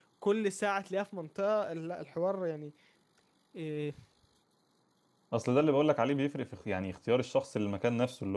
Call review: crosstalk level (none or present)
none